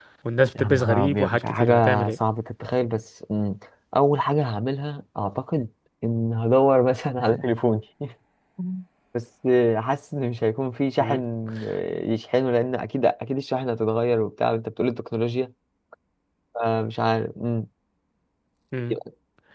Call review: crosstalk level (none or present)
present